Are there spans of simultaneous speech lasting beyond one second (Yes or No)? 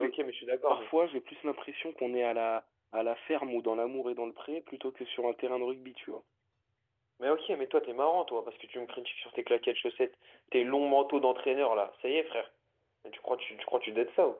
No